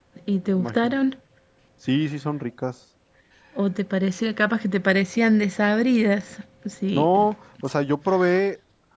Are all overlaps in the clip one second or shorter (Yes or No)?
Yes